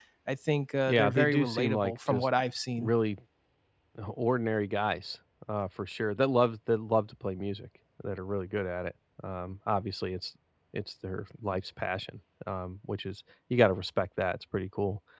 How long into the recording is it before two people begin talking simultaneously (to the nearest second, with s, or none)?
1 s